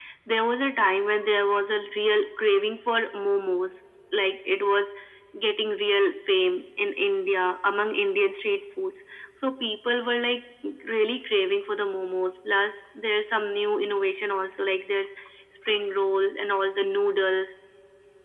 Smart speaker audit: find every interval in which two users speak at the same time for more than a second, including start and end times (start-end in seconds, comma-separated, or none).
none